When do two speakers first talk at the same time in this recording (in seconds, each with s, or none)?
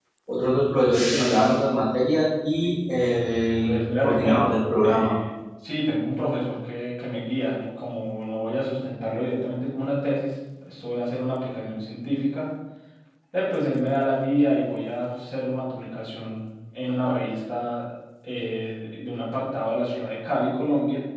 3.6 s